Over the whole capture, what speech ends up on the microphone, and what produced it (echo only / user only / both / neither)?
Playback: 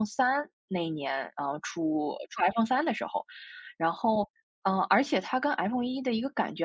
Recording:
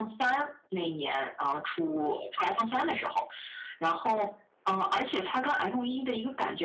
echo only